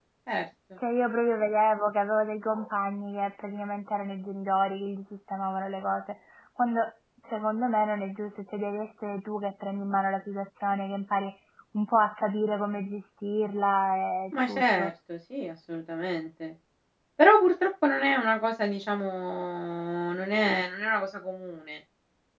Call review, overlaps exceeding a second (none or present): none